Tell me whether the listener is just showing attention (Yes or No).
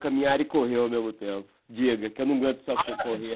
No